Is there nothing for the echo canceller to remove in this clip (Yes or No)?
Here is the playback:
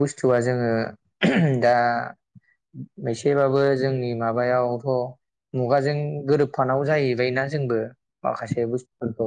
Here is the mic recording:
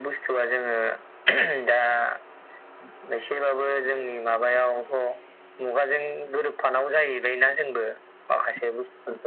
No